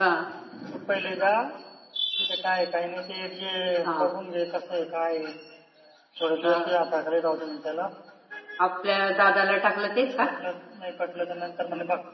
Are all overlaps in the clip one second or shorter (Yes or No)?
Yes